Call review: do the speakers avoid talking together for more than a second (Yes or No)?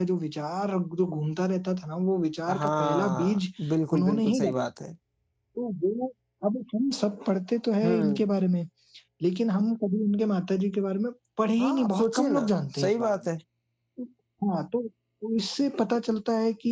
No